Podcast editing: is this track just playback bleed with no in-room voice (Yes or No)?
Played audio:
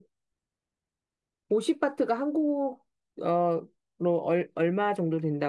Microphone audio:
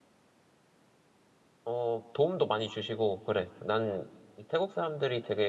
No